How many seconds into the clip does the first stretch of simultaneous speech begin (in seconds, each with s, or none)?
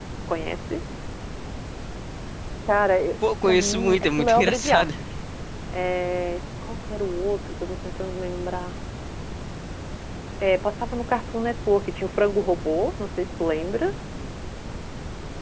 3.4 s